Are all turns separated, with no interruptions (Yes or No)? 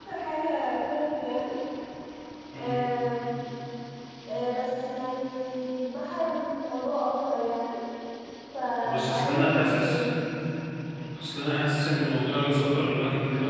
No